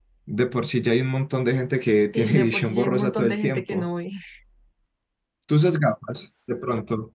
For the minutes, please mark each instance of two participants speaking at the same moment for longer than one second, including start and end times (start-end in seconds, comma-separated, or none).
2.1-3.9